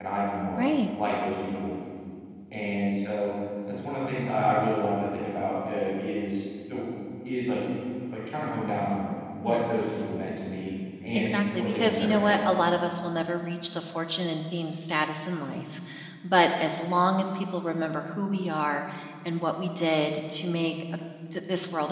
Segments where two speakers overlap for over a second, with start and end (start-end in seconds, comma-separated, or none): 11.2-12.5